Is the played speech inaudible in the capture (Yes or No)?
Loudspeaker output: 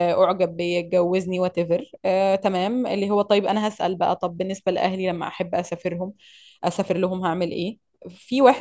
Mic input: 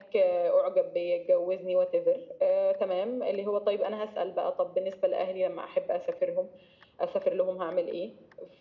No